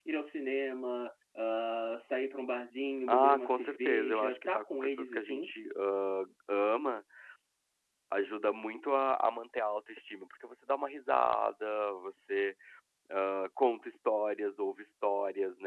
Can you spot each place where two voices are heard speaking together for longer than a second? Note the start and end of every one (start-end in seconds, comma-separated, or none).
3.1-5.5